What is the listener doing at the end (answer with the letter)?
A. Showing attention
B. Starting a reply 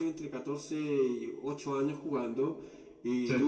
A